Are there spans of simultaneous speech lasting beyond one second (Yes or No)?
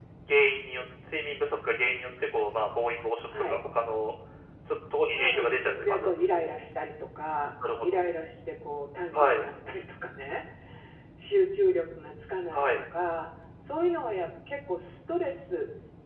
Yes